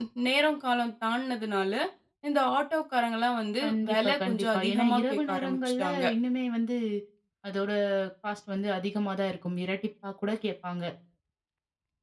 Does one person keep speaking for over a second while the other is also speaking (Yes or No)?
Yes